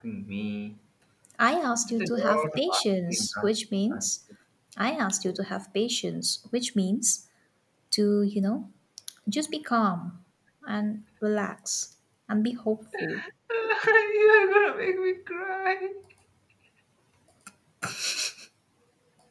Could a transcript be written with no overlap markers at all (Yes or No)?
No